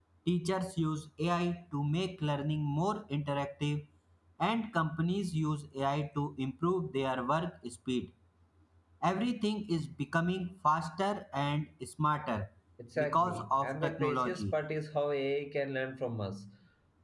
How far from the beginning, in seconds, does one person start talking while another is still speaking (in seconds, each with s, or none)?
13.0 s